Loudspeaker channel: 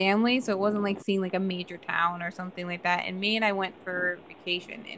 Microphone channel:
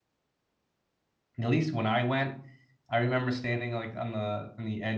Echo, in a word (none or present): none